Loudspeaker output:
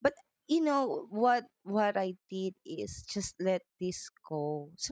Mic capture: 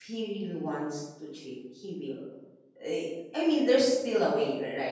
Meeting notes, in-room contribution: present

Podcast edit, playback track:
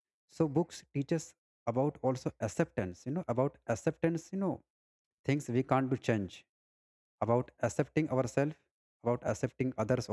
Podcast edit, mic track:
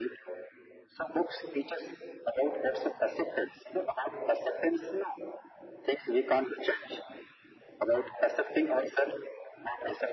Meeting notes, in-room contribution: none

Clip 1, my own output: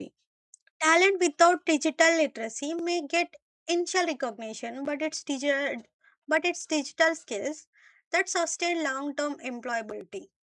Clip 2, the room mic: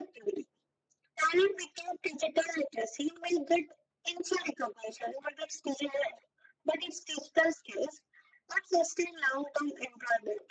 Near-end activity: none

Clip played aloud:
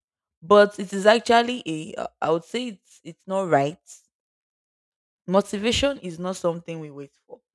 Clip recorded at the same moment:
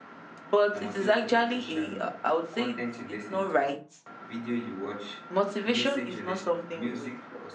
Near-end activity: present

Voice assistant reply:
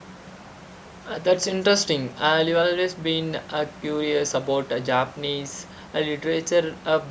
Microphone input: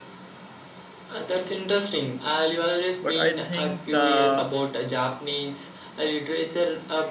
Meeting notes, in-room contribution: present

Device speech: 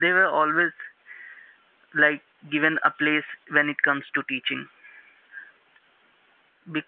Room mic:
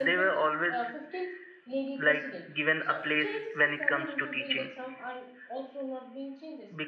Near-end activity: present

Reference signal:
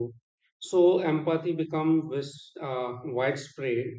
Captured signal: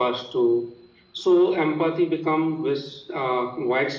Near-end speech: none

